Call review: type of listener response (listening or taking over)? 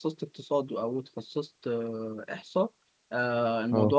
listening